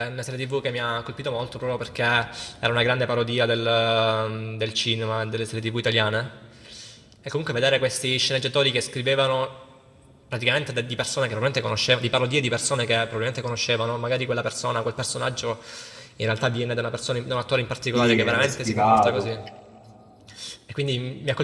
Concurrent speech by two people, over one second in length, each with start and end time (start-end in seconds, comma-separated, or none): 17.9-19.3